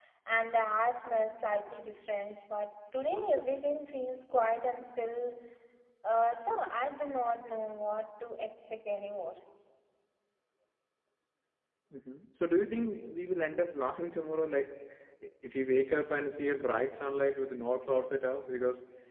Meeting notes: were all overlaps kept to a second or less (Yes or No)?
Yes